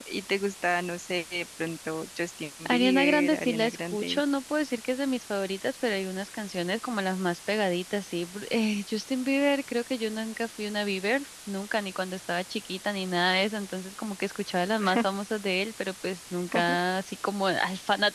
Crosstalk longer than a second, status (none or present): present